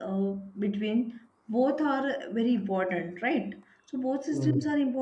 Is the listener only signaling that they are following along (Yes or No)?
Yes